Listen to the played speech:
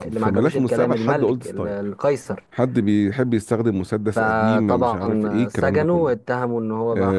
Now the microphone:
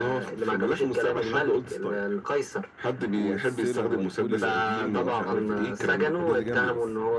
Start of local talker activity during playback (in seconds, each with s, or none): 3.1 s